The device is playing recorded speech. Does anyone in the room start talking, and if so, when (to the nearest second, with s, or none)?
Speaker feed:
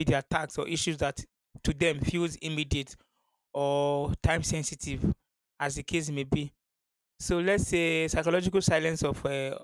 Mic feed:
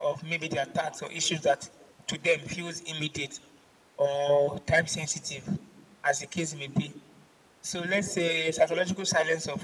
none